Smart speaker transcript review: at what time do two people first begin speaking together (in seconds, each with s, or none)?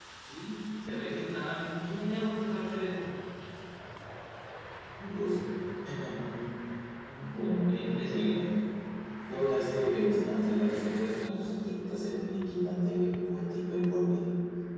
7.2 s